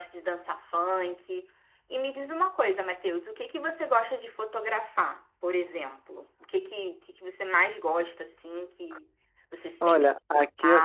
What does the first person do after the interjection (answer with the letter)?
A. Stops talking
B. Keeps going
A